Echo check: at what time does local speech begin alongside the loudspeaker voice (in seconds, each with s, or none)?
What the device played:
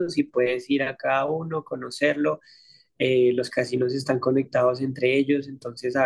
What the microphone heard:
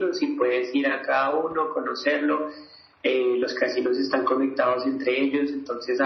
none